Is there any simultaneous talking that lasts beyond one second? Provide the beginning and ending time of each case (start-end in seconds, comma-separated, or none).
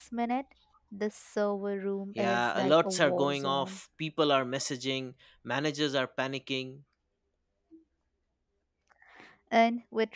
2.1-3.8